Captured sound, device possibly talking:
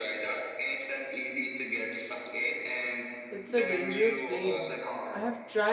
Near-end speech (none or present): present